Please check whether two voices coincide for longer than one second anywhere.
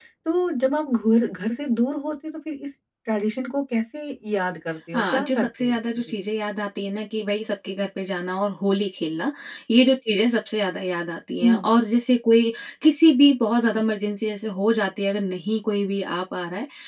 Yes, from 4.9 s

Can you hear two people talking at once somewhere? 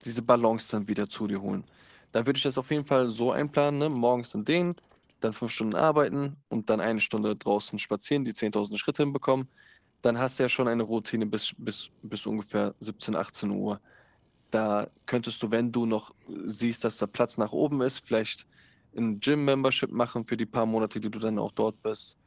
No

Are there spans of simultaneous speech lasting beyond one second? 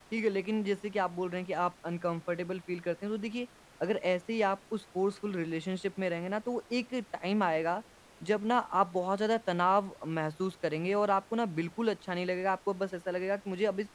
No

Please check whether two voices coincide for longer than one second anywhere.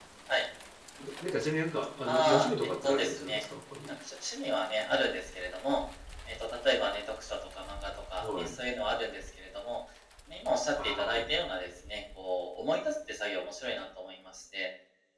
Yes, from 2.0 s

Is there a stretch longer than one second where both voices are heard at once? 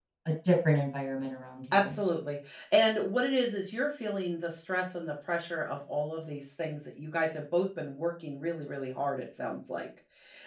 No

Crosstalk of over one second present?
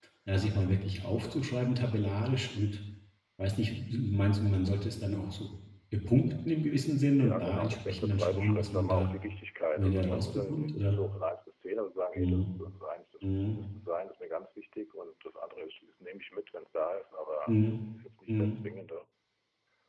Yes, from 7.2 s

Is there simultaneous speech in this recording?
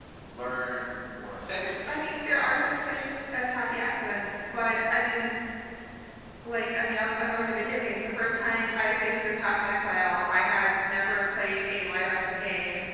Yes, from 1.6 s

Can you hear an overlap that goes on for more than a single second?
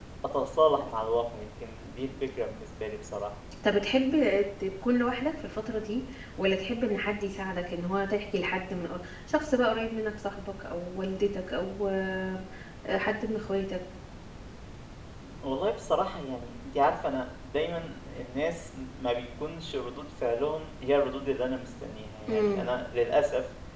No

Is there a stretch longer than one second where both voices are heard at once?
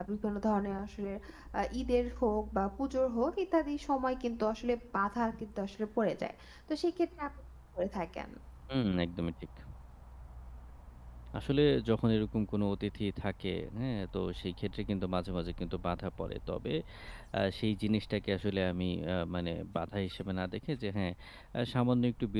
No

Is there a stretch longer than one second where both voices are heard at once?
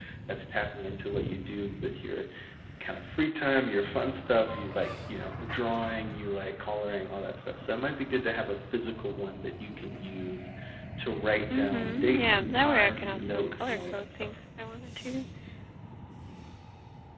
Yes, from 11.5 s

